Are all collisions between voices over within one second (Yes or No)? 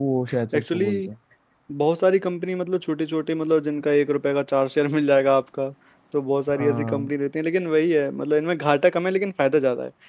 Yes